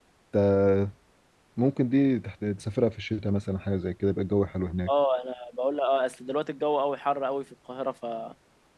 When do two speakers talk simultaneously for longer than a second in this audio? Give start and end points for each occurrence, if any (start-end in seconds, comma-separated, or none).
none